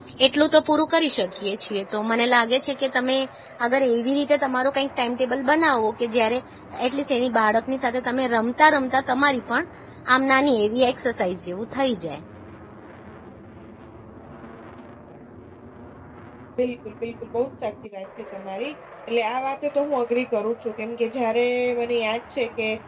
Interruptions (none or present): none